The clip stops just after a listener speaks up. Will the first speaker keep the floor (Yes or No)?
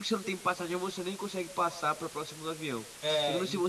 Yes